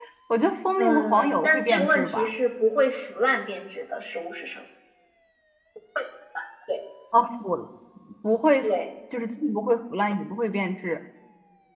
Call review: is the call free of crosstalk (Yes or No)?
No